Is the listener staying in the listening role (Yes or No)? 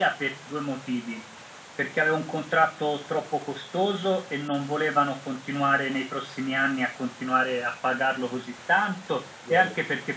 Yes